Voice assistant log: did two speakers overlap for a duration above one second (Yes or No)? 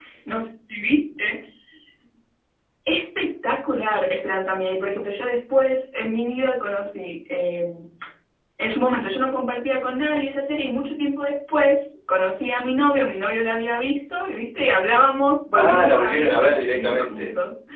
Yes